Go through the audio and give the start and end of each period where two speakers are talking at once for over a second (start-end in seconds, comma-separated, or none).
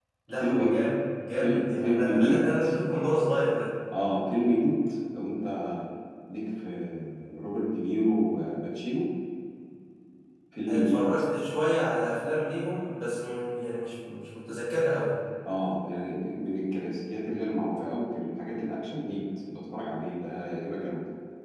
1.4-2.6